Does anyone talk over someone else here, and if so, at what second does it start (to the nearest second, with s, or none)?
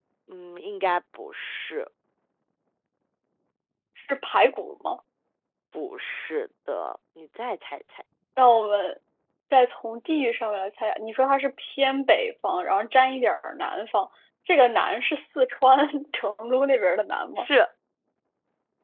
none